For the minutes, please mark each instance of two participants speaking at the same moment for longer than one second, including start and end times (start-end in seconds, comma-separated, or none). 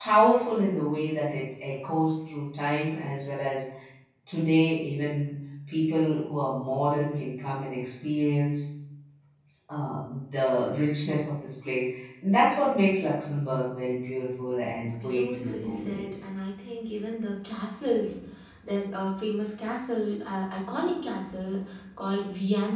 15.0-16.2